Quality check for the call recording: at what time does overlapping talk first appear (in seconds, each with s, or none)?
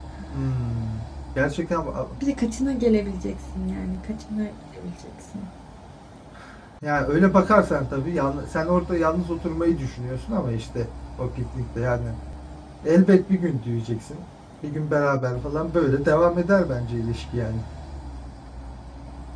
none